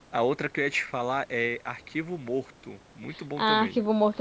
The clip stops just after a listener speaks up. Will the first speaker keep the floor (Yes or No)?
No